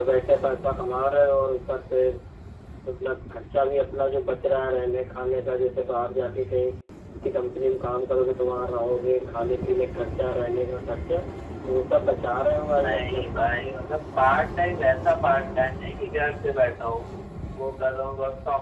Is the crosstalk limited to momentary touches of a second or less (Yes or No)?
Yes